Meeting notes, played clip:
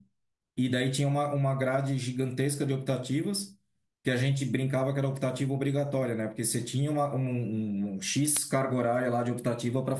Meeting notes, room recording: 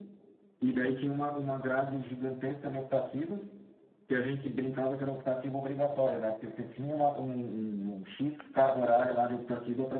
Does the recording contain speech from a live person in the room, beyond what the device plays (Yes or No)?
No